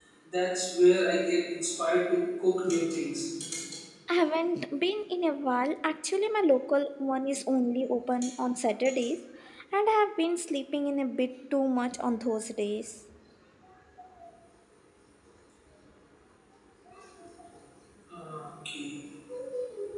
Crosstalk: none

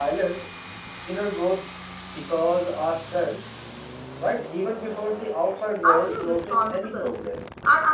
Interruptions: present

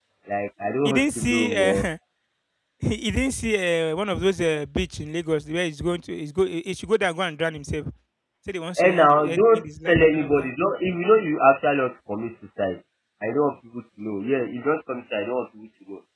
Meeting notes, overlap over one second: present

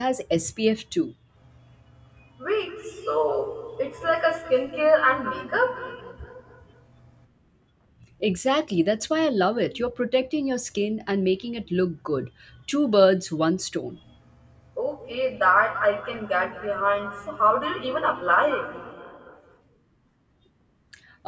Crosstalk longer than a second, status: none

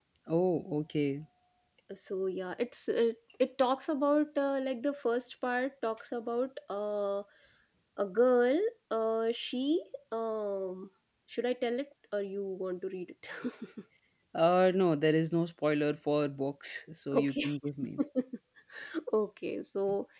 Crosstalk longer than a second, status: none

